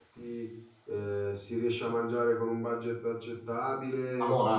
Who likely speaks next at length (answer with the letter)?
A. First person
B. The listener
B